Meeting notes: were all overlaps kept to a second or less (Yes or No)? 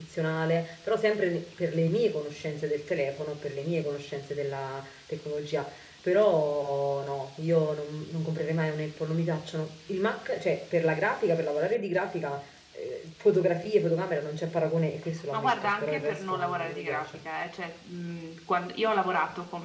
No